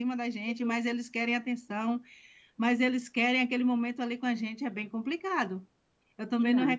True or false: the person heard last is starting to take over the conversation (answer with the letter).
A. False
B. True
A